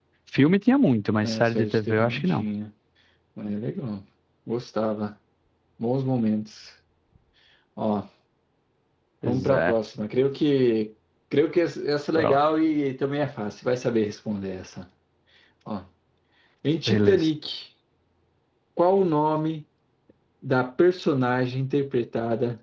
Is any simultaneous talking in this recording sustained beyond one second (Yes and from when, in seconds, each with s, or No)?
Yes, from 1.2 s